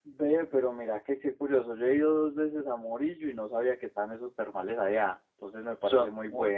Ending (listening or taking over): listening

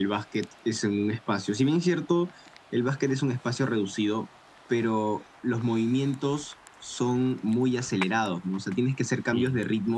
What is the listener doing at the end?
listening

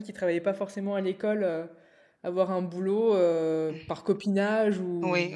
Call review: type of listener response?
taking over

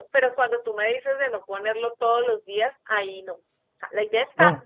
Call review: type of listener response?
listening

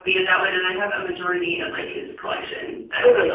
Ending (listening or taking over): taking over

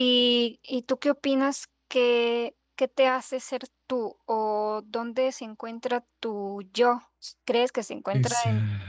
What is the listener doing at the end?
listening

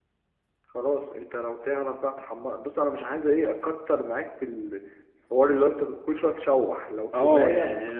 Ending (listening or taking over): taking over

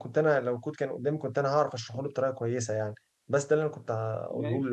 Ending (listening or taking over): taking over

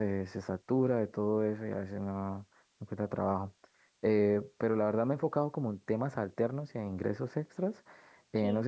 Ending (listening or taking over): listening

